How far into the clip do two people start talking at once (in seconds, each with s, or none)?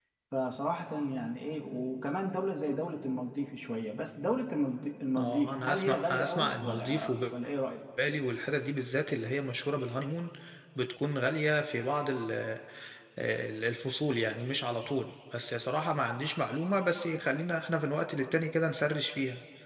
5.2 s